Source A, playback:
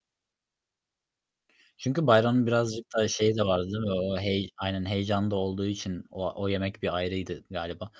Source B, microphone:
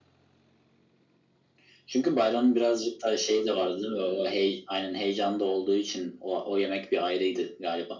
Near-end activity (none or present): none